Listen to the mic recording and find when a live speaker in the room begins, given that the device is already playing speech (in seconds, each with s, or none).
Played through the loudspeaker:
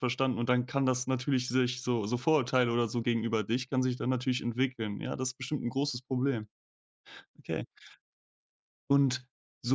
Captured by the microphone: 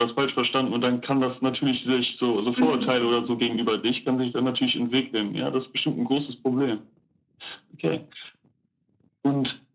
2.6 s